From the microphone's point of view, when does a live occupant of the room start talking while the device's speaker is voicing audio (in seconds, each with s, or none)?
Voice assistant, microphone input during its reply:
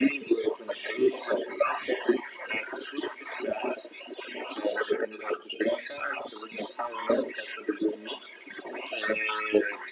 none